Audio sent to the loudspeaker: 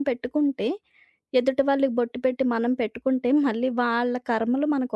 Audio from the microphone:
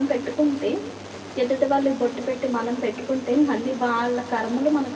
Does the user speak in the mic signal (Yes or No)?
No